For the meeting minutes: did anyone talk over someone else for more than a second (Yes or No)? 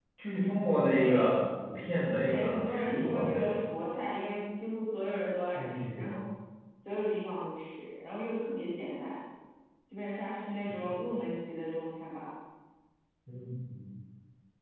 Yes